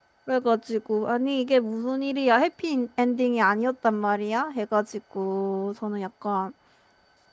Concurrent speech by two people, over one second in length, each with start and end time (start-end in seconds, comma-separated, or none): none